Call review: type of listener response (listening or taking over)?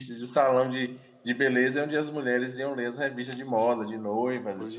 taking over